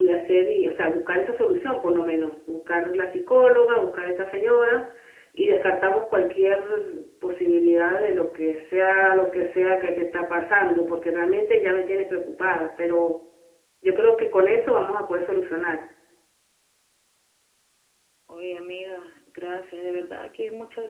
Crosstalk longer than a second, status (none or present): none